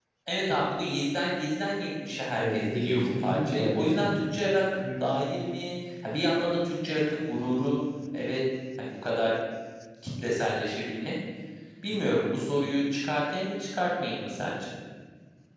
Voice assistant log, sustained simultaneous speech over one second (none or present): present